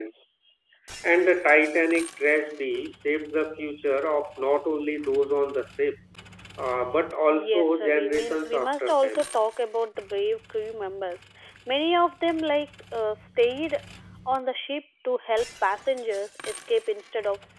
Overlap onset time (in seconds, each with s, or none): 7.3 s